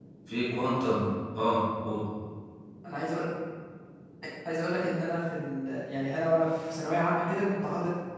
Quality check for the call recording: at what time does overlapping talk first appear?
none

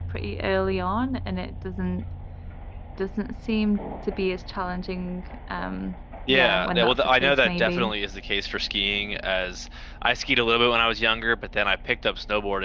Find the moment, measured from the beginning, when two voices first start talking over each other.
6.3 s

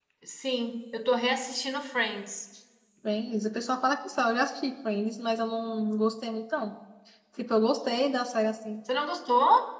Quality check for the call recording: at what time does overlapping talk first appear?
none

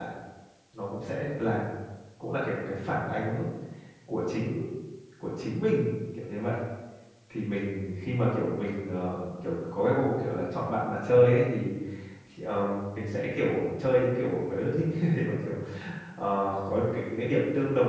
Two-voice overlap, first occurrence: none

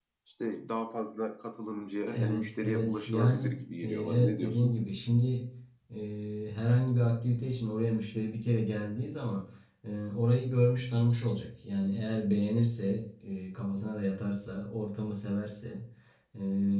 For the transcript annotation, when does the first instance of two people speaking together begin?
2.1 s

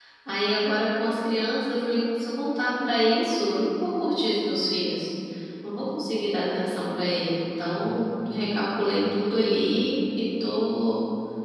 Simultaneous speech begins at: none

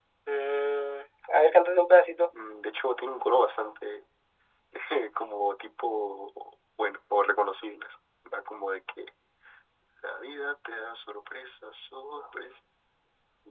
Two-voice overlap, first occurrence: none

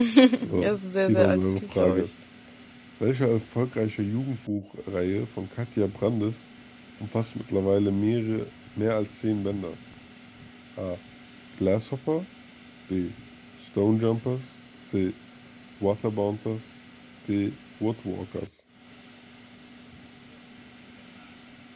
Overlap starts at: 0.5 s

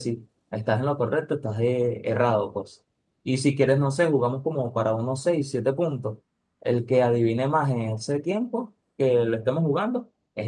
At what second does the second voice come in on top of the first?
none

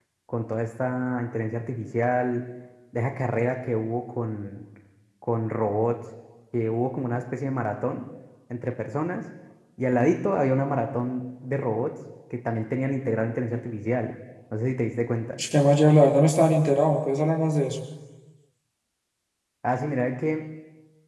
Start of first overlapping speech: none

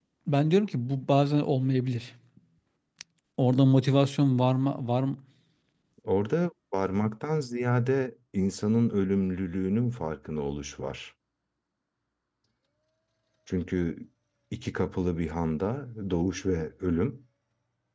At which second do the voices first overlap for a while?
none

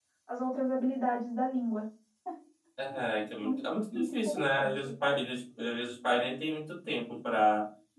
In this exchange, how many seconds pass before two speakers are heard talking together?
3.4 s

